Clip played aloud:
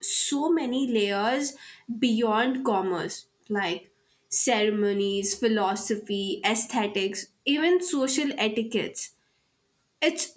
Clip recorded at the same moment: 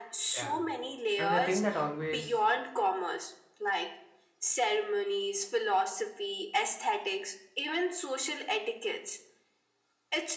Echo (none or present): present